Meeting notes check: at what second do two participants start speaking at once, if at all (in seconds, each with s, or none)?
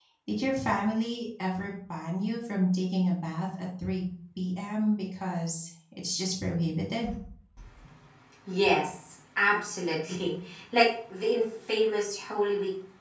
none